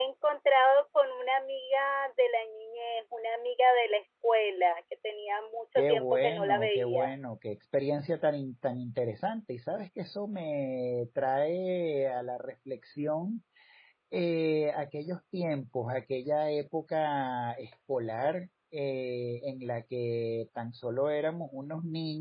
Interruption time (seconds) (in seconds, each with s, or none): 5.8 s